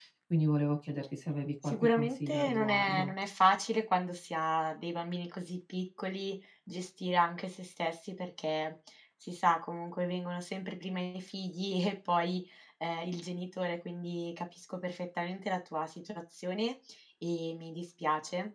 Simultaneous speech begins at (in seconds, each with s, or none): 1.6 s